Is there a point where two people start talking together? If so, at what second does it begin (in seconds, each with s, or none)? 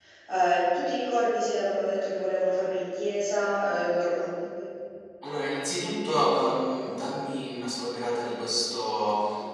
none